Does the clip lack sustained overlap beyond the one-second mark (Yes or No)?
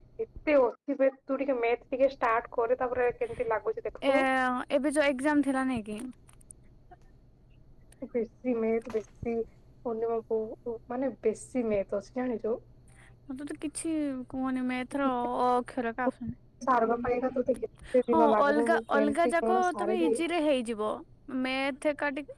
No